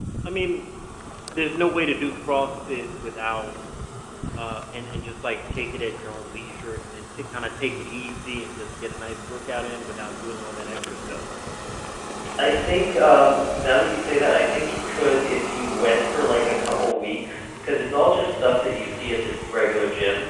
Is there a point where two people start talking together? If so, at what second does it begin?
none

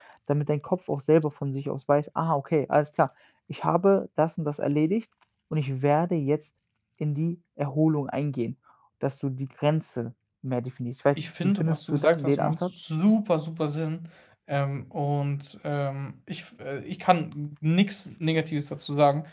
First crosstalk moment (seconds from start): 11 s

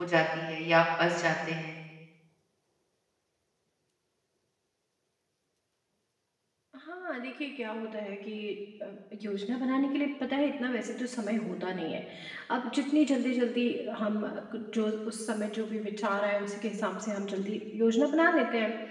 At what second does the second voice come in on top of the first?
none

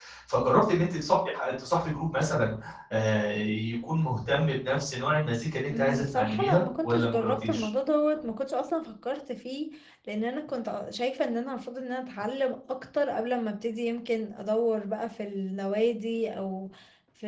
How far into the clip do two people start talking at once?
6 s

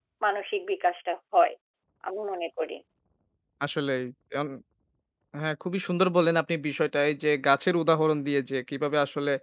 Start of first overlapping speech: none

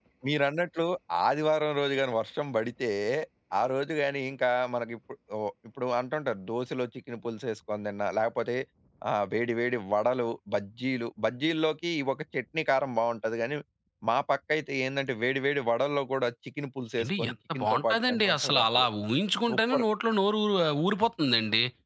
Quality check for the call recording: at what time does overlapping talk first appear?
17 s

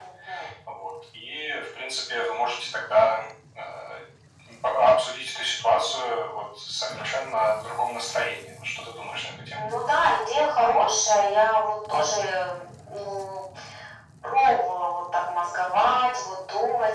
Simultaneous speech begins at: none

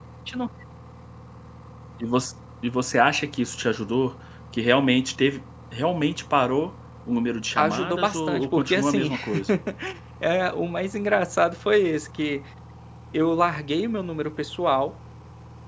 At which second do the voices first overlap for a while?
8 s

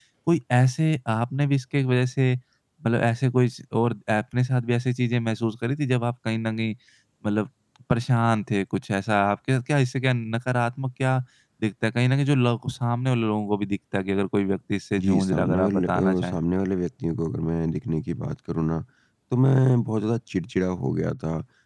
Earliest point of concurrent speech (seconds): 15 s

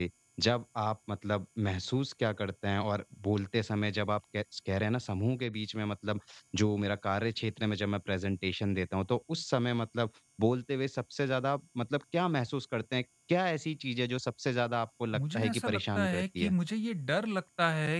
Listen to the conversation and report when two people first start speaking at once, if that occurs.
15 s

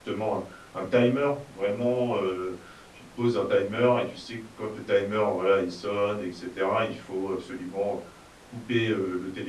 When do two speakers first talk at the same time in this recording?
none

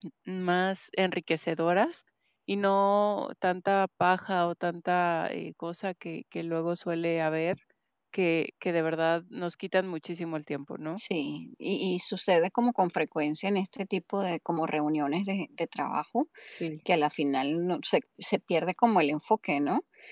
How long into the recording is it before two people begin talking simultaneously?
none

